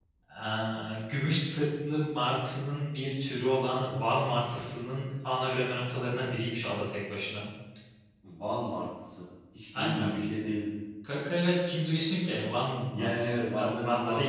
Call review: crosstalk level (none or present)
present